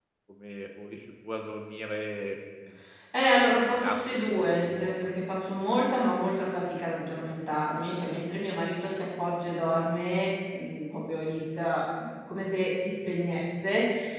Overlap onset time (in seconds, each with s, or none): 3.6 s